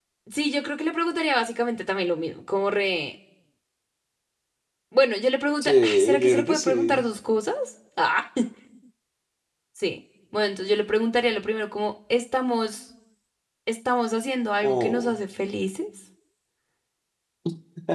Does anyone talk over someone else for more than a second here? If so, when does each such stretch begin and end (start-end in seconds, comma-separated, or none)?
5.6-7.0